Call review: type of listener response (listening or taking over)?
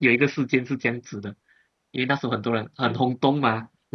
listening